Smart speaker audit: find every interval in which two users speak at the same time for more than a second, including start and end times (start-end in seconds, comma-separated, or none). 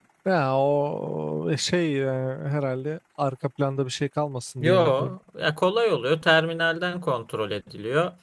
none